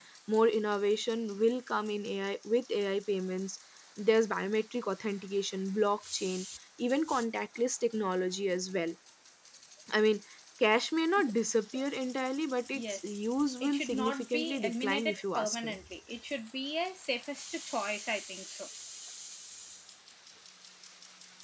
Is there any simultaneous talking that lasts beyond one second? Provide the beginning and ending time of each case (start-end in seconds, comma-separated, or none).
13.6-15.8